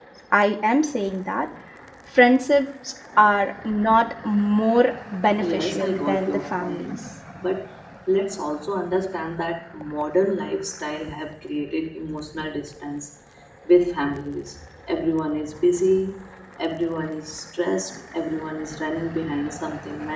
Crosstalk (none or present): present